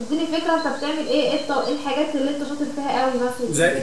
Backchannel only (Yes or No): No